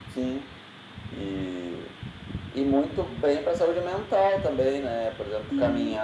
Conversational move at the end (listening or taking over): listening